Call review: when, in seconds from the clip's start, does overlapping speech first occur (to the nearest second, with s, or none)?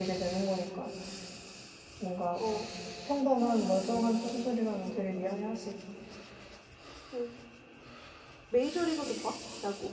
none